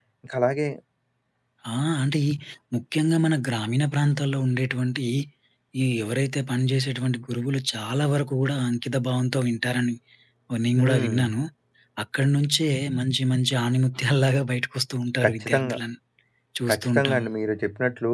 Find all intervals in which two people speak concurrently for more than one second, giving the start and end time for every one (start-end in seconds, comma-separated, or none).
none